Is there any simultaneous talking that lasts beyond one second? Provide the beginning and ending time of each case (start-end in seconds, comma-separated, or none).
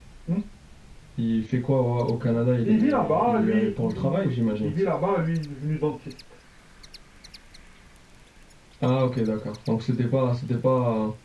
2.6-4.7